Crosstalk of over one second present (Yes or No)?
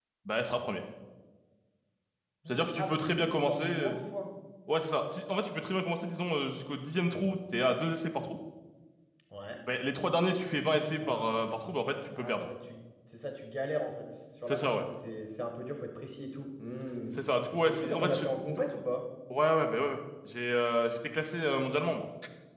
Yes